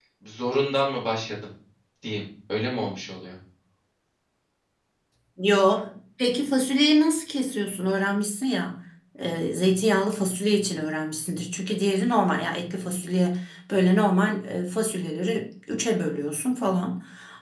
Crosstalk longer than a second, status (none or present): none